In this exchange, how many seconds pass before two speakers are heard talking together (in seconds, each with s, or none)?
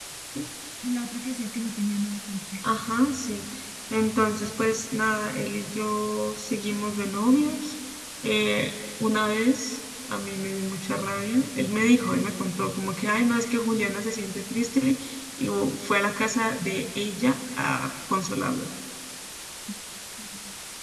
none